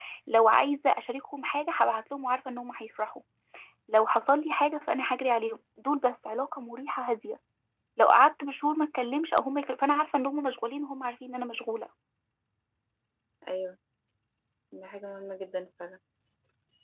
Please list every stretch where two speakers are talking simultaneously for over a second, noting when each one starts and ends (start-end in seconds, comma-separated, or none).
none